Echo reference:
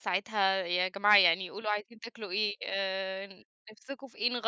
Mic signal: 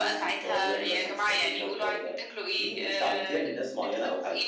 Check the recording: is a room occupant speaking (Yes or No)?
Yes